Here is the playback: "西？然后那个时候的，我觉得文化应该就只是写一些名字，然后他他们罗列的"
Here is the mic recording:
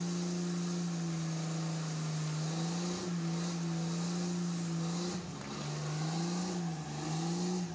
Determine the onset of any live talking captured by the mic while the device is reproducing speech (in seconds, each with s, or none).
none